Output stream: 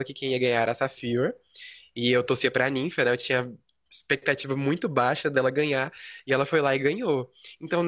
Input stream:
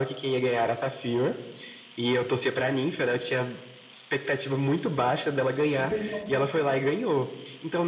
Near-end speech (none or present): present